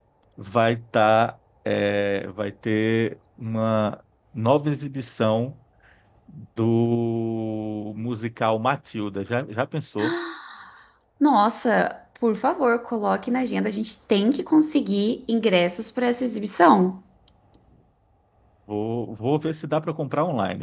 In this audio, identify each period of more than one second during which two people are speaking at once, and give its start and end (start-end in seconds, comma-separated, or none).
none